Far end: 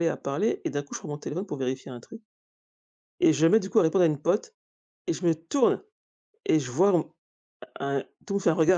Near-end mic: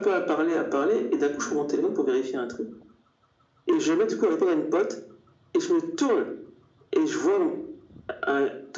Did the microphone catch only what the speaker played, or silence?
Yes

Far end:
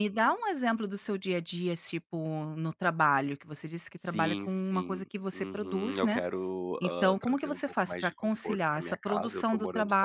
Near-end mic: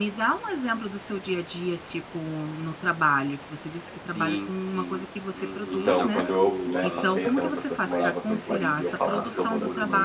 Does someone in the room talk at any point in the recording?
Yes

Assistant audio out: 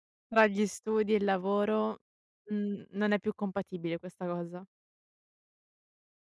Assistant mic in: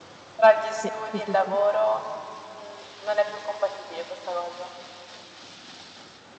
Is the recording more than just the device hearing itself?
Yes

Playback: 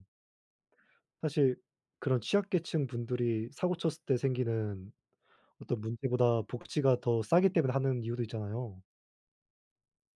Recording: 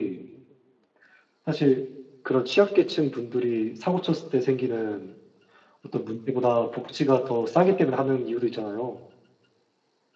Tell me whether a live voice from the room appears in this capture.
No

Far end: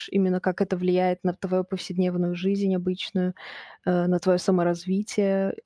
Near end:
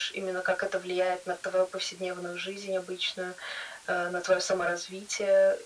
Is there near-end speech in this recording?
No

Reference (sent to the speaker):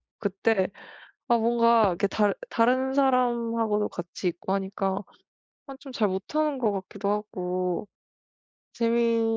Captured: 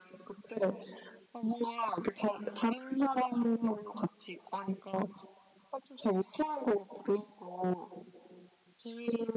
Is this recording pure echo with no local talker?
Yes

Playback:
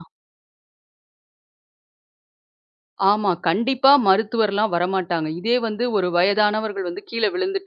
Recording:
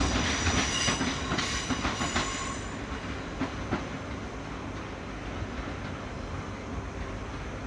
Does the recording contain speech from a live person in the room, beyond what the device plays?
No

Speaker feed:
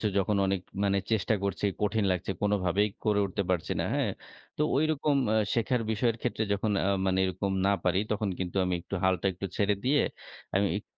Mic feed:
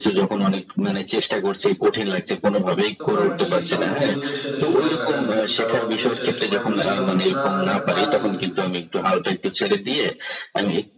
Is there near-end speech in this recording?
Yes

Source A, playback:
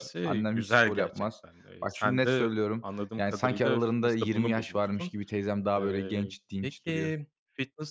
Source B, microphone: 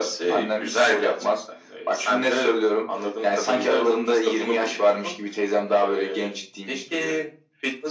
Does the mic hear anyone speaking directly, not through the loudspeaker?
No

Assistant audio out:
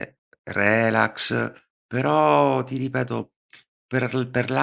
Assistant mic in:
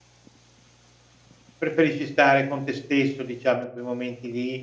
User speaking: Yes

